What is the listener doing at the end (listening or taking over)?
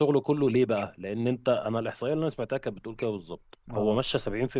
listening